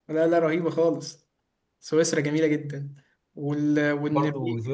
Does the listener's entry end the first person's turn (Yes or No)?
Yes